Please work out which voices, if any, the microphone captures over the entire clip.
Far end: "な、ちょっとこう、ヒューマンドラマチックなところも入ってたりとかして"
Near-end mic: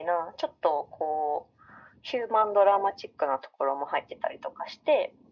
echo only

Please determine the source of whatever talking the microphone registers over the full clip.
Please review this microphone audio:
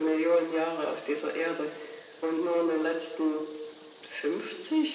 echo only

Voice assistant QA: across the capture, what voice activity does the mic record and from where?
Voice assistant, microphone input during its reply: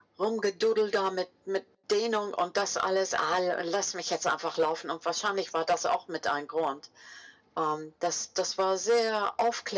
echo only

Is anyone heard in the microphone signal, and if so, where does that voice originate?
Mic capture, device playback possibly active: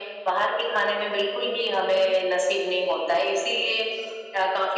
echo only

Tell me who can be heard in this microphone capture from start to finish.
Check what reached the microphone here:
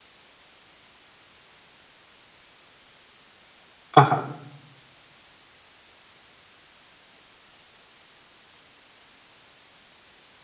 user only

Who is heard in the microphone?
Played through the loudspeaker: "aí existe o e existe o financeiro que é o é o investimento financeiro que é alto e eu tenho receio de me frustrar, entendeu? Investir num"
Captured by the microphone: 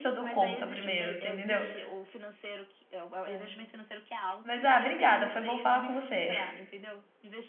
both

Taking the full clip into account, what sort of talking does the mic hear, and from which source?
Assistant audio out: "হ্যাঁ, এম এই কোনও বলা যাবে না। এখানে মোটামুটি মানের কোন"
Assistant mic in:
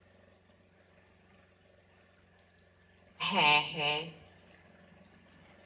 user only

